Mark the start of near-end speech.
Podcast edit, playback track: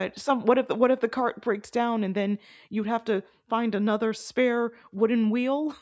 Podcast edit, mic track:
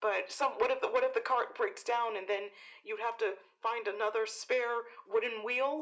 none

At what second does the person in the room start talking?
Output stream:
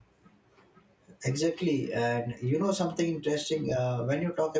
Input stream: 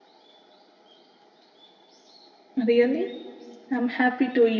2.6 s

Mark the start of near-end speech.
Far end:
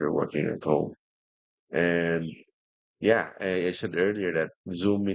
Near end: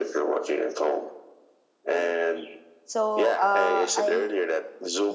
1.9 s

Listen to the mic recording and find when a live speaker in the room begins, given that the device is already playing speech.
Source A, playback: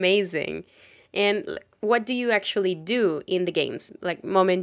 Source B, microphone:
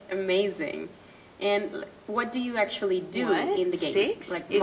3.1 s

